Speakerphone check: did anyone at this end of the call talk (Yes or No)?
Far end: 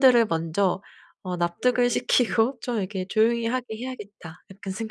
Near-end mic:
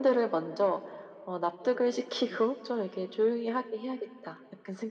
No